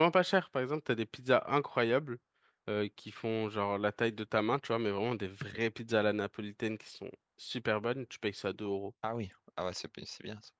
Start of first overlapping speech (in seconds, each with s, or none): none